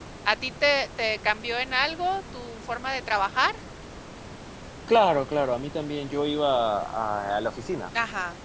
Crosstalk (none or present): none